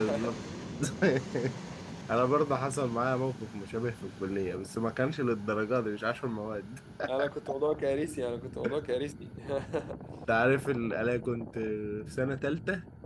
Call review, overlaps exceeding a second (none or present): none